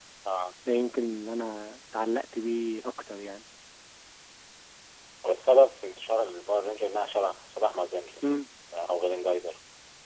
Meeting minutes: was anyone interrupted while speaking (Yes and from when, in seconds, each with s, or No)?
No